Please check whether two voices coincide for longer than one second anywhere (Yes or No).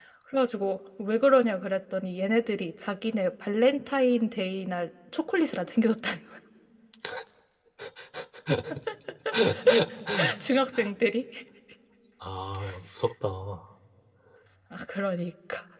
No